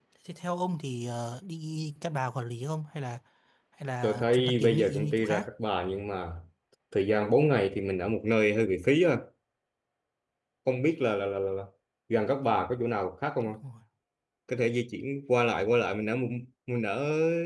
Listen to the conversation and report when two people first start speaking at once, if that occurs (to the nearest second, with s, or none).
4 s